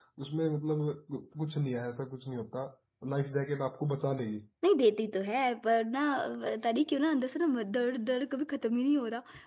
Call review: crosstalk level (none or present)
none